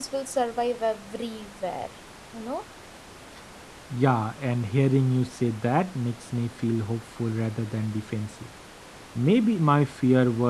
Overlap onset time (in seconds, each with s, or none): none